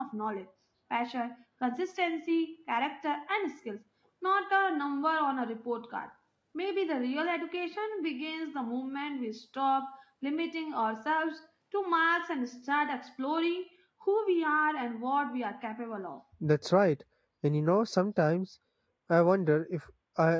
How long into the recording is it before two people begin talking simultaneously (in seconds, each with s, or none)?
none